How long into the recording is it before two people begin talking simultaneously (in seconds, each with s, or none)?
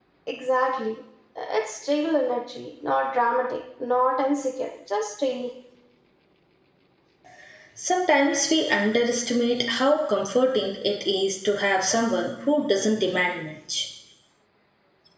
none